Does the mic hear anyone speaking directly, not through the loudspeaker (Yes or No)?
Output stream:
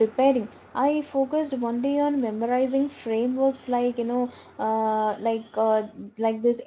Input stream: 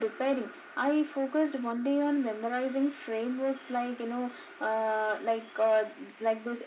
No